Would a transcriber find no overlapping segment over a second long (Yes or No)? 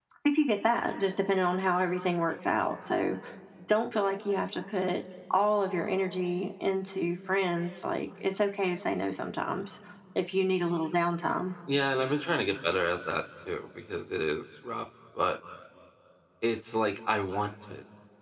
Yes